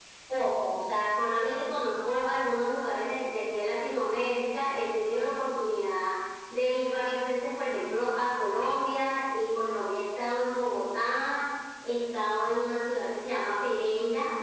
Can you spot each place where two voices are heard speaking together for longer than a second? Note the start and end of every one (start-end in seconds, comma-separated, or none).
none